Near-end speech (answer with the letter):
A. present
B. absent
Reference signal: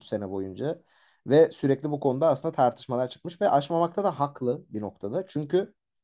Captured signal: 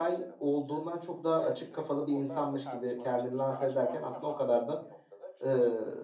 A